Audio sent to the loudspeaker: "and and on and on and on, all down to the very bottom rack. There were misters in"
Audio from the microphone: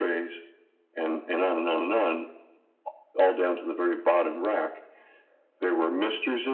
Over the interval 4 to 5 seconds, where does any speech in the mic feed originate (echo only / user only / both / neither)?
echo only